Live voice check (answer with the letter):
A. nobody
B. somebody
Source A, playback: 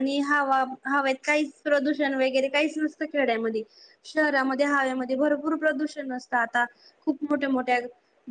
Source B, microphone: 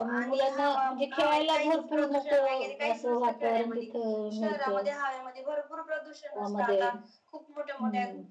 B